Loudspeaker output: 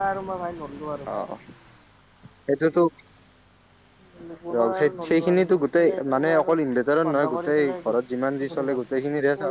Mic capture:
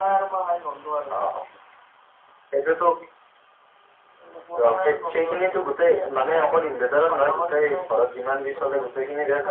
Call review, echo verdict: present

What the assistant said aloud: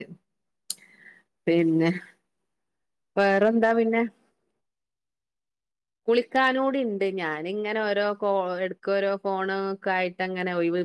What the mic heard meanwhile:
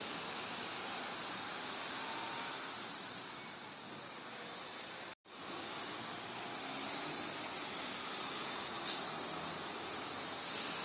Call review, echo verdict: none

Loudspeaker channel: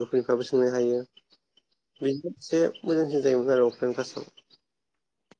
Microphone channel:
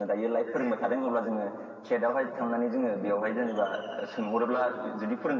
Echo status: none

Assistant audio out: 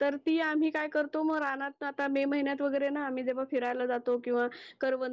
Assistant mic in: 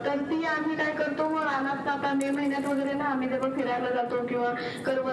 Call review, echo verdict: present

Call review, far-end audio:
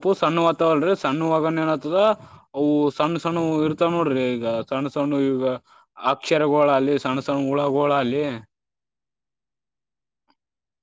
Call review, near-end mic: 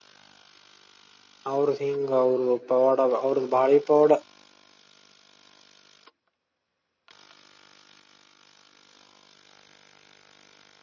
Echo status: none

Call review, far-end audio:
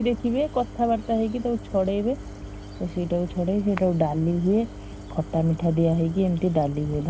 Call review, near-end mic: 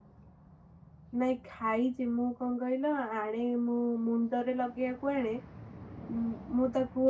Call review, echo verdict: none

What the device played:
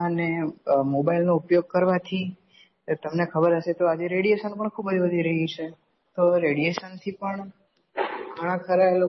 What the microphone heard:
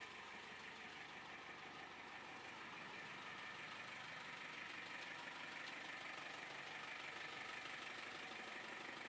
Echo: none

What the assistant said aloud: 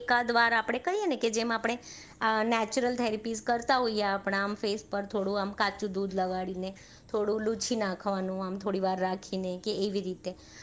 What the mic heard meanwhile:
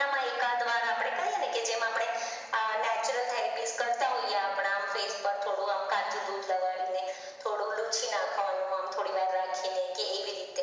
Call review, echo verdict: present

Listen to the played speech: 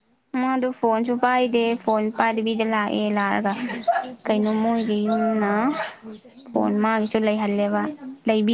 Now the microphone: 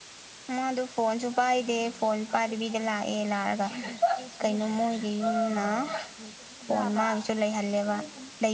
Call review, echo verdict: present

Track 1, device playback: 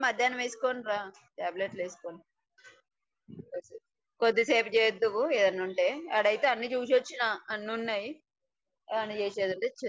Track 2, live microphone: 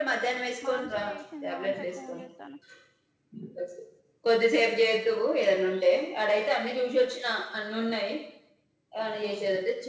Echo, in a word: present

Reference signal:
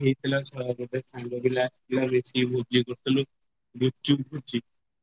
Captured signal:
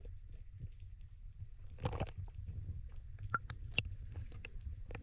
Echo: none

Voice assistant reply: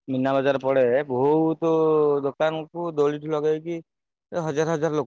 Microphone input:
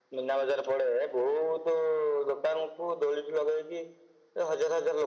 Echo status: present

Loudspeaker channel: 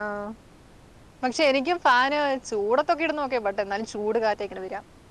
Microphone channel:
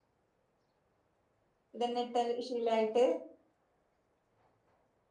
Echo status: none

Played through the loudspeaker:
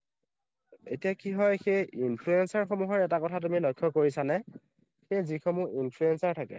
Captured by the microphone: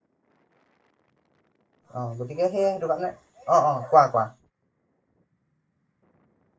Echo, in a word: none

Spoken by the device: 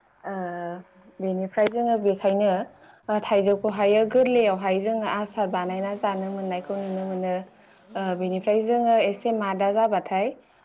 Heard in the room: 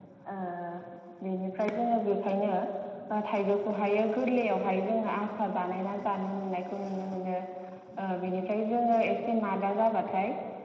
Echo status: present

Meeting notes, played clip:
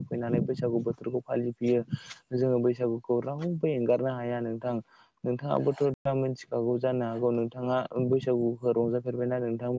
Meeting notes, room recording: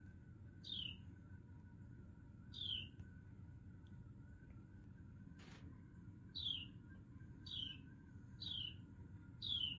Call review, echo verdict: none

